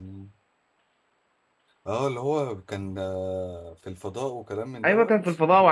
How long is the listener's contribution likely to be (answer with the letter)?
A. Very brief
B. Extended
B